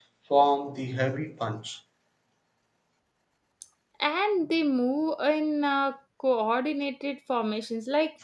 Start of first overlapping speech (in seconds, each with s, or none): none